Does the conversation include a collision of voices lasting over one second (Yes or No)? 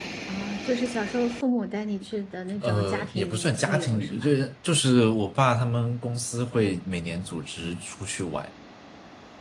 Yes